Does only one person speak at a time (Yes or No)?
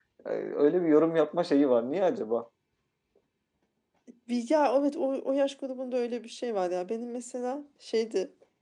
Yes